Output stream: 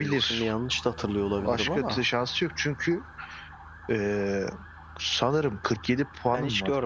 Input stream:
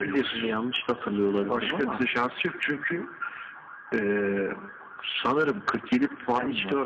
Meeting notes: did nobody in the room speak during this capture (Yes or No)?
Yes